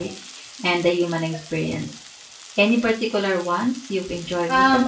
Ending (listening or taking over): taking over